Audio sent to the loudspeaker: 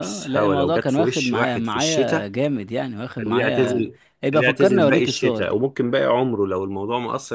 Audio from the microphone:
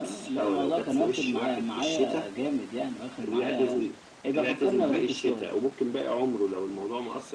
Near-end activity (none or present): none